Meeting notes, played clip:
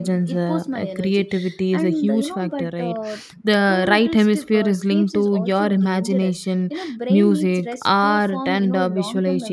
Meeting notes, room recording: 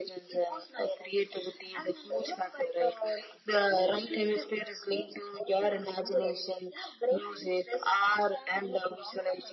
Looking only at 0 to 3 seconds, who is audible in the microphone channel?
echo only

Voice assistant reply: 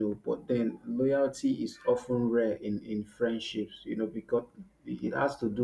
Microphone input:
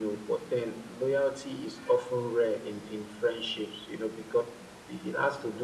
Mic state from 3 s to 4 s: echo only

